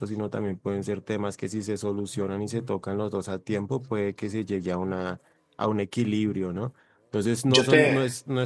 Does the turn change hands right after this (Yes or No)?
No